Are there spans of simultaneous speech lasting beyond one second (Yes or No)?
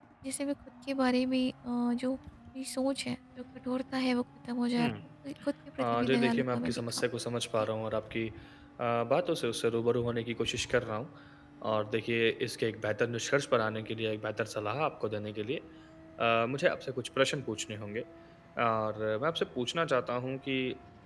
Yes